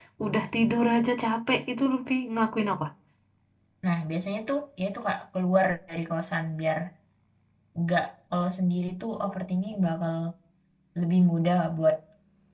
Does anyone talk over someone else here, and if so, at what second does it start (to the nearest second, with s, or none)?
none